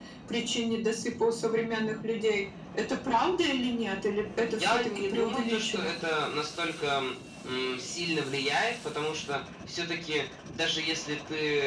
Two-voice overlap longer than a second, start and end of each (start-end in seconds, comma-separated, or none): 4.5-5.9